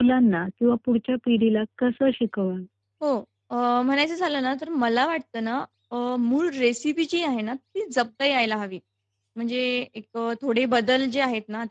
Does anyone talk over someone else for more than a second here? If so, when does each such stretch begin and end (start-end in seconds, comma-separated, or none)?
none